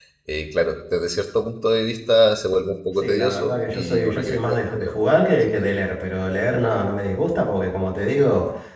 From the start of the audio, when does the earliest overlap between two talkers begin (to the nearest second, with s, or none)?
3 s